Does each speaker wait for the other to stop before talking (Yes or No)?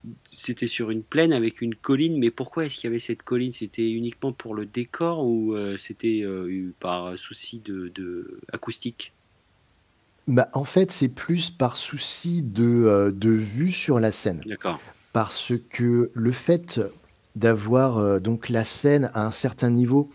Yes